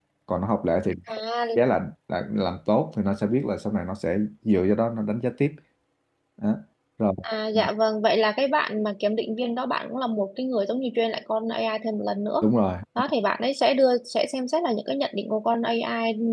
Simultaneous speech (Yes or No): No